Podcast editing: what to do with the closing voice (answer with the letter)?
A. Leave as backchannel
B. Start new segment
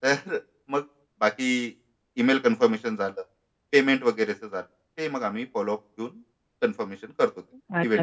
B